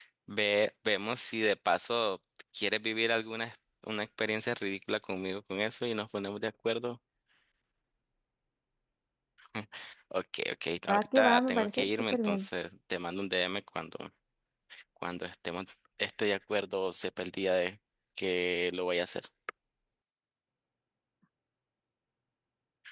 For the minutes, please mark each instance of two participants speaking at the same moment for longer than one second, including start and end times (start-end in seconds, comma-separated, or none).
10.9-12.5